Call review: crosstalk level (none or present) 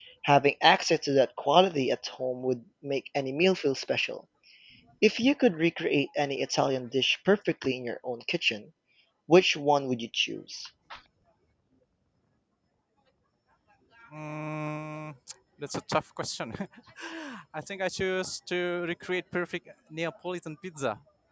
none